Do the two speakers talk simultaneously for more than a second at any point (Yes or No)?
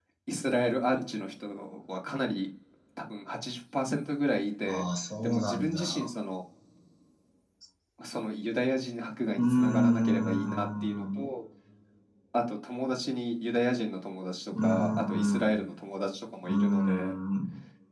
Yes